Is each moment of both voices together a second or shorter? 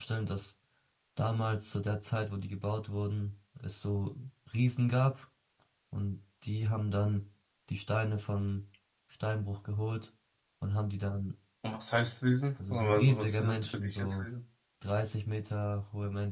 No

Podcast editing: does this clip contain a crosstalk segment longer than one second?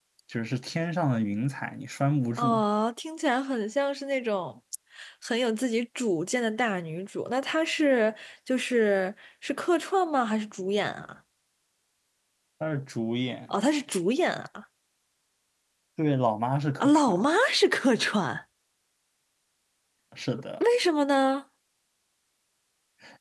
No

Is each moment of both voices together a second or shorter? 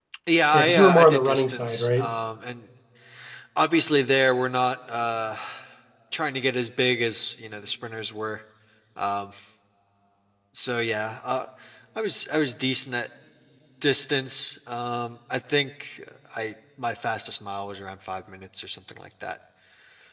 No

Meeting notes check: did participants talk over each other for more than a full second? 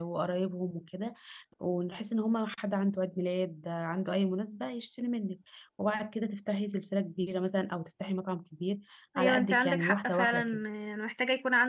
Yes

